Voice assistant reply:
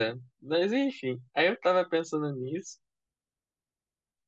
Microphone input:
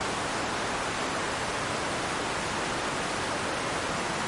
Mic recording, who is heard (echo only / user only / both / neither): neither